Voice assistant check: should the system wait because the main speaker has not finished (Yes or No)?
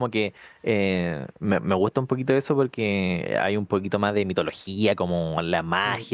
Yes